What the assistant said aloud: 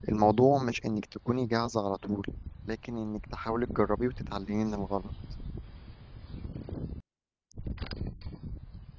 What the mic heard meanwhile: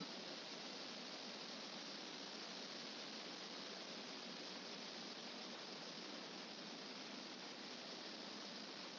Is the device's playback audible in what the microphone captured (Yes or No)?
No